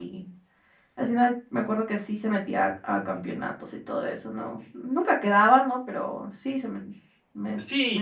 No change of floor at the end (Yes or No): No